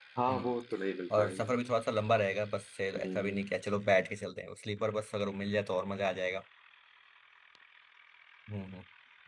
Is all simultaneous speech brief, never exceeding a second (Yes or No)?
Yes